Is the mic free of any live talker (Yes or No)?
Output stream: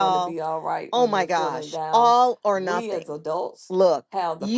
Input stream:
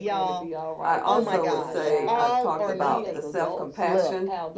No